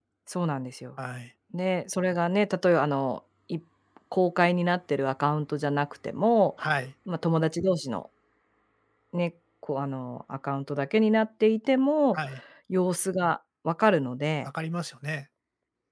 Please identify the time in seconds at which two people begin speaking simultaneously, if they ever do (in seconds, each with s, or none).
none